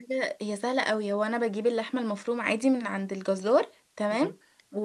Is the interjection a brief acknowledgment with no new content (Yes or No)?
Yes